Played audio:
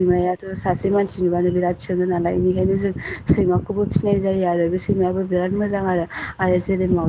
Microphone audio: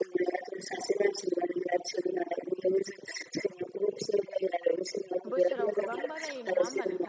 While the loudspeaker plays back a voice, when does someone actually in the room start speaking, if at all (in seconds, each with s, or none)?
5.3 s